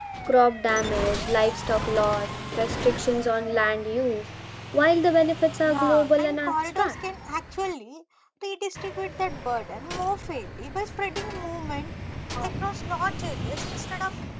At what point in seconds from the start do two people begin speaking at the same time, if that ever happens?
6 s

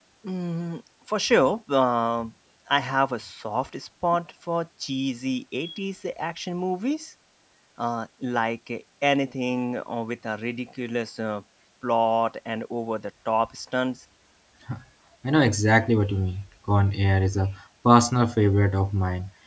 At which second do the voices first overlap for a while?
none

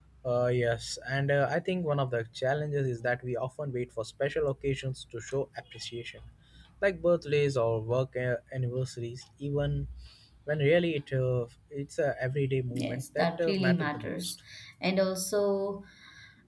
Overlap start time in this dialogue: 13 s

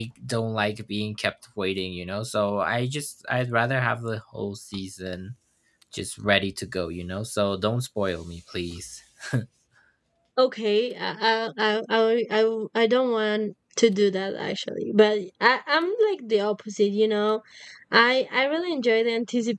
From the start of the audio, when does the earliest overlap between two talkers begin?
none

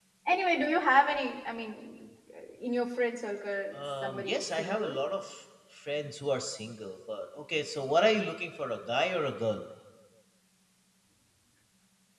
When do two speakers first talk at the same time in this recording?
4 s

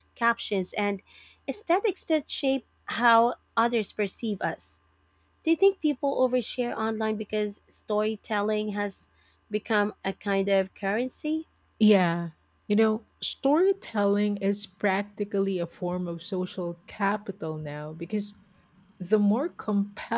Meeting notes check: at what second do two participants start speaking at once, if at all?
none

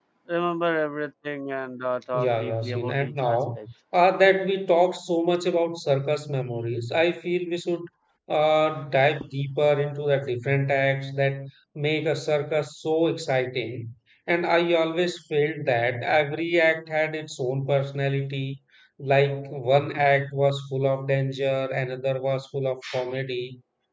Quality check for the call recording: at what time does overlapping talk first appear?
2 s

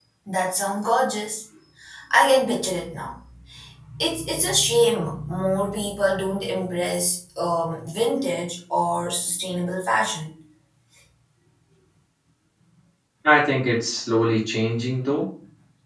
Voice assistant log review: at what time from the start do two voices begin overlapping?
none

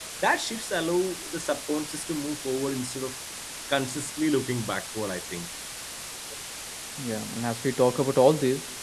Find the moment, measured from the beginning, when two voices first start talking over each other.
none

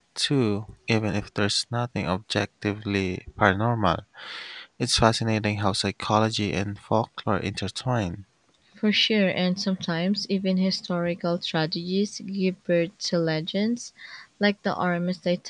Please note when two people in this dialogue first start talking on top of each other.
none

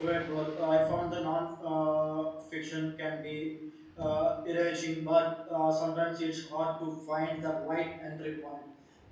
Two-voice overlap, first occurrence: none

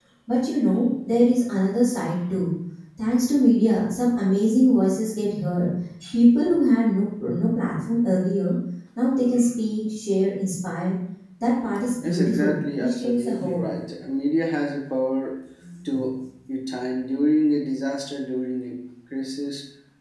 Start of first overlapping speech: 12 s

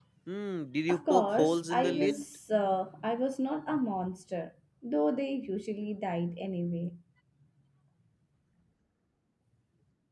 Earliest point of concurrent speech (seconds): 1 s

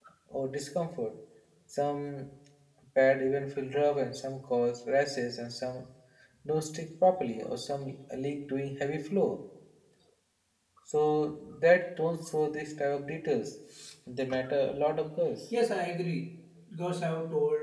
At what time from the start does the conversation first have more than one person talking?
none

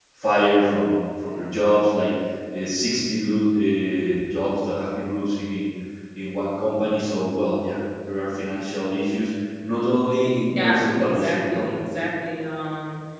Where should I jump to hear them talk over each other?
10 s

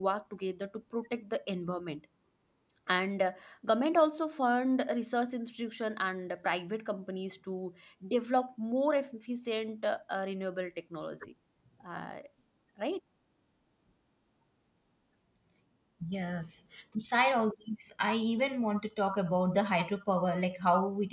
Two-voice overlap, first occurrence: none

